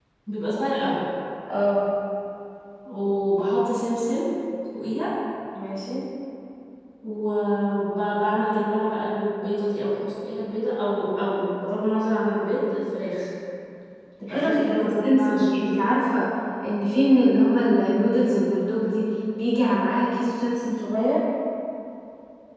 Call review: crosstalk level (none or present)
present